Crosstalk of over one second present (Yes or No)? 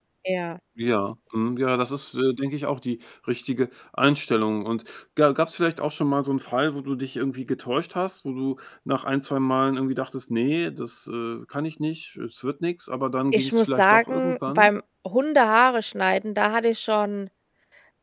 Yes